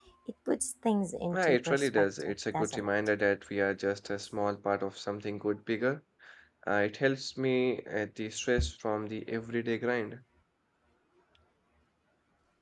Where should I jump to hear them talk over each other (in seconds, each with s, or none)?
1.3 s